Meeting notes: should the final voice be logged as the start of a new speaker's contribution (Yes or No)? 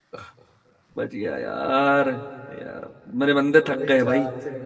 Yes